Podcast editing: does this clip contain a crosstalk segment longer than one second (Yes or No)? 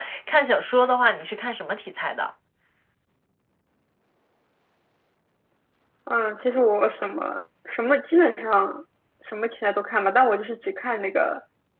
No